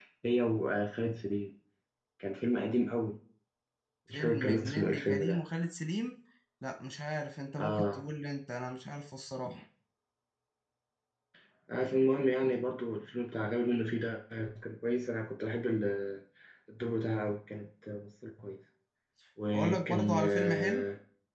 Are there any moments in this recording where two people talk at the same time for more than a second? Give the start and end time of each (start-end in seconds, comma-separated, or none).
4.1-5.4, 19.5-20.8